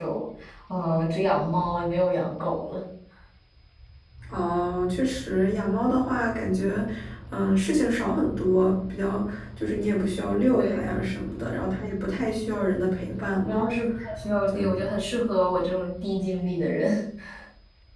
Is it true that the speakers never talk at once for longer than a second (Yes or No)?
Yes